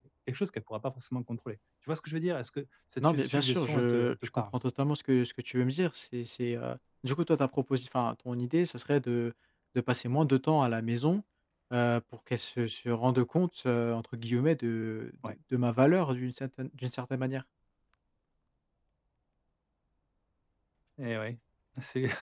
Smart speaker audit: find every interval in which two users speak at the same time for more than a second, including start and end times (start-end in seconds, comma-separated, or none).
3.0-4.4